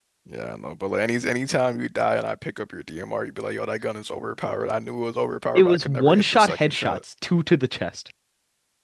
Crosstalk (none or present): present